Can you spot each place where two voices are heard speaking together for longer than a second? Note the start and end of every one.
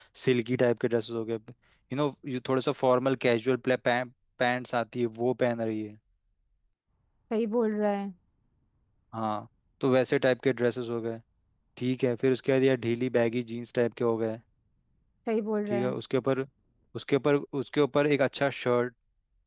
none

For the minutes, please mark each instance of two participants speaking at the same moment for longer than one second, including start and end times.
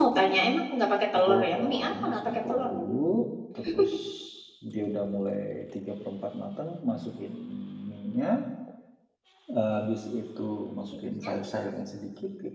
1.2-2.7

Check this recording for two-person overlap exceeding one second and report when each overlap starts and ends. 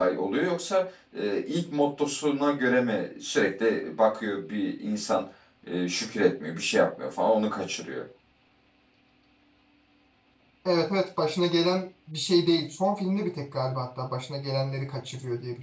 none

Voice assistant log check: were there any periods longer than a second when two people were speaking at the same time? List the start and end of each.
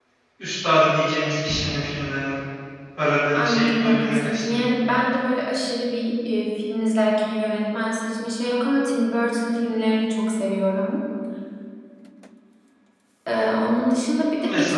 3.3-4.7

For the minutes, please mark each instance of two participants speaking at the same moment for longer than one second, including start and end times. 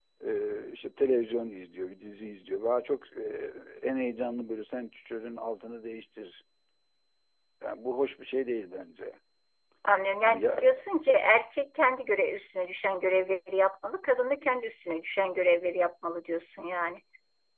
none

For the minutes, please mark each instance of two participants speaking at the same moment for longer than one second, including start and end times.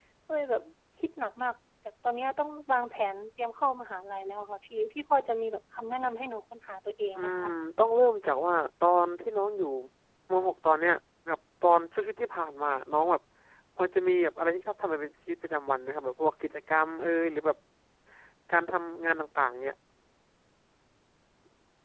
none

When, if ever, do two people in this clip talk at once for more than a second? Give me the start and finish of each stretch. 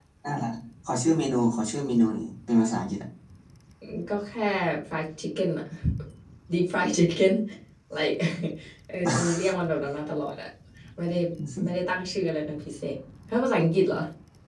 none

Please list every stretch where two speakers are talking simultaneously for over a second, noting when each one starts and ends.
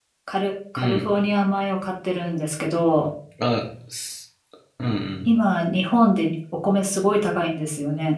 none

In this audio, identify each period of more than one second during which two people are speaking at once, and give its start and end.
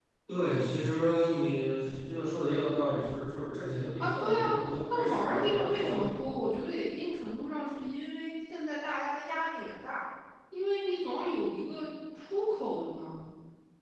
4.9-6.4

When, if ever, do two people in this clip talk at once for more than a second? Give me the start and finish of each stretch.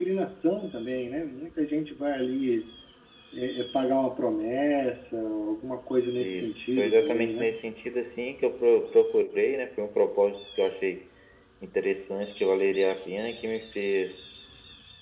6.2-7.5

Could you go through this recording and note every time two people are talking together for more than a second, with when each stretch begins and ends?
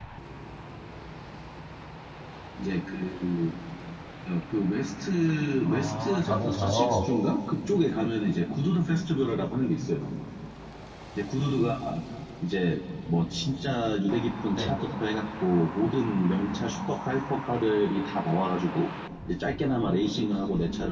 5.7-7.1

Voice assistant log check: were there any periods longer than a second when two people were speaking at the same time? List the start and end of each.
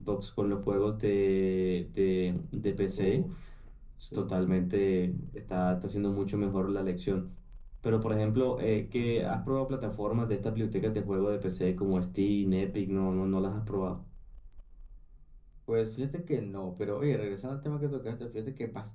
none

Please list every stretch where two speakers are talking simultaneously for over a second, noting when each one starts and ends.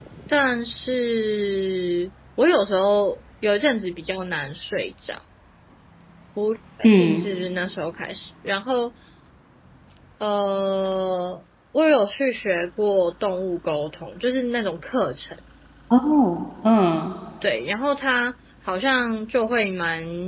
none

